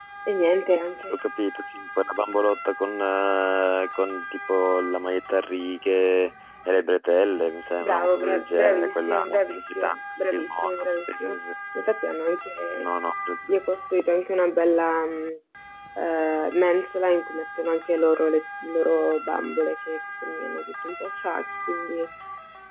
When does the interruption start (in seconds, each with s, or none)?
7.8 s